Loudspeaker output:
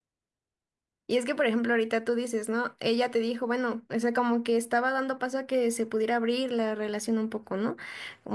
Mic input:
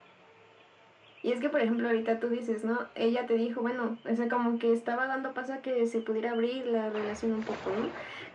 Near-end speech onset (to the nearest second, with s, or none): none